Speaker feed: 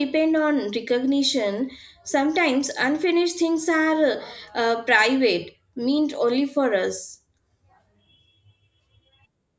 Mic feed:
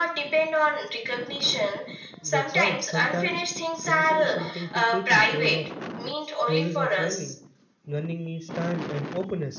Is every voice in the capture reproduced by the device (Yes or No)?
No